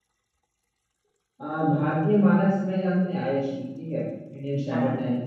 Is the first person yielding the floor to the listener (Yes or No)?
No